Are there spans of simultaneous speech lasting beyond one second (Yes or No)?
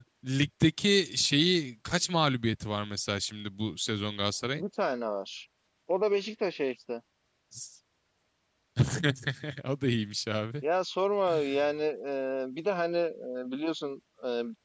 No